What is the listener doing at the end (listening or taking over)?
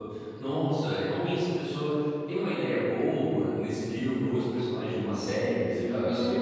taking over